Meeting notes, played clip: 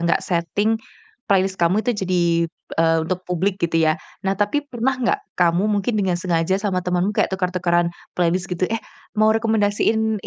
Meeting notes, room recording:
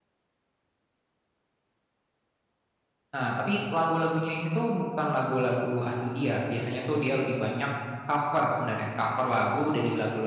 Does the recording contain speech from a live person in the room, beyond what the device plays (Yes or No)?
Yes